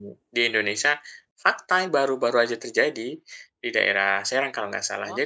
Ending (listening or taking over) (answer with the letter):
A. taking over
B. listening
B